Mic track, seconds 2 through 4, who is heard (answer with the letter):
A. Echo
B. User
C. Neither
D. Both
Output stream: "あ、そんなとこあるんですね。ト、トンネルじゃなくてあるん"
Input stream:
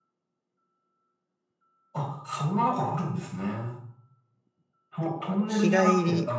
A